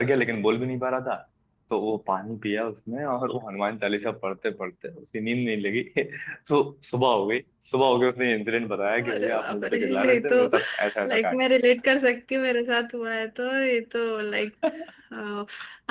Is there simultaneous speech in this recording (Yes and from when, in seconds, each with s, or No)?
Yes, from 9.0 s